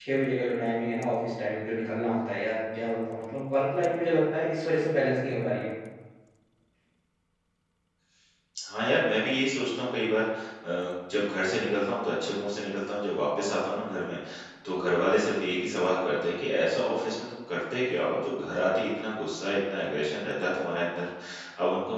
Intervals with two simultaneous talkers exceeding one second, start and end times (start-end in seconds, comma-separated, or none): none